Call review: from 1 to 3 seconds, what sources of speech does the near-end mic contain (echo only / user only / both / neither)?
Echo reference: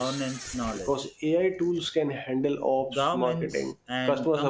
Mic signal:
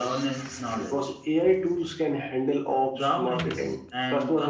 echo only